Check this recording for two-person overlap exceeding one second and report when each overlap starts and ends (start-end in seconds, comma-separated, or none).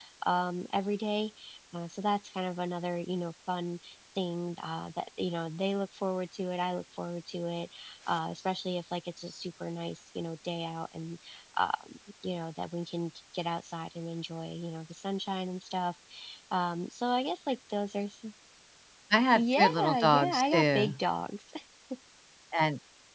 19.4-20.9